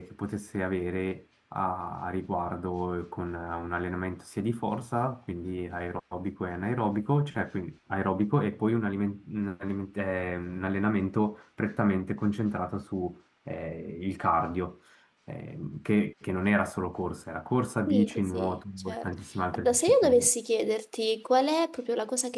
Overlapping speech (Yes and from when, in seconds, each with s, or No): Yes, from 17.9 s